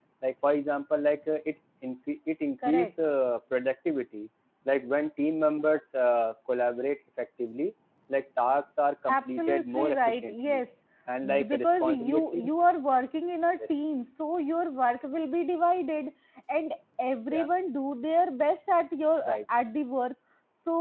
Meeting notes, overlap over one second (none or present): present